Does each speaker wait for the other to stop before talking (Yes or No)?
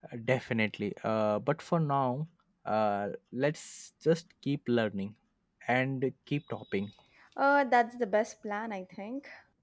Yes